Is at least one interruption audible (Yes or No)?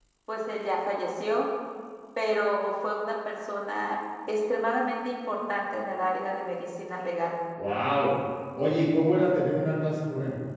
No